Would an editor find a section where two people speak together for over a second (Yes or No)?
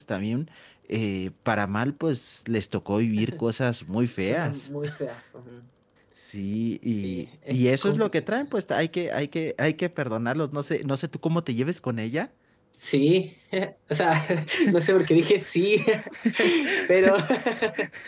Yes